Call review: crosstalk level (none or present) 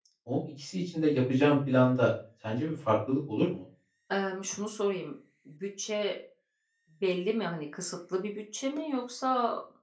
none